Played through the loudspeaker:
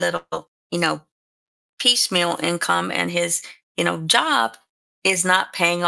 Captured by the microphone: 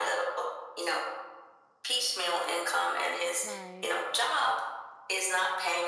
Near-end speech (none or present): present